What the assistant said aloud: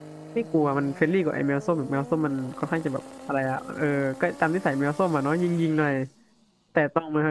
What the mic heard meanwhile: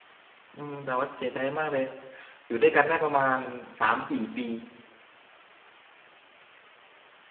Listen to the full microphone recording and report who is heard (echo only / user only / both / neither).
user only